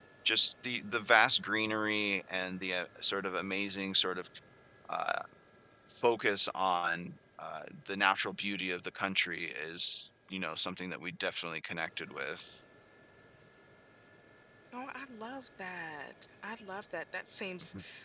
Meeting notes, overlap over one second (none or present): none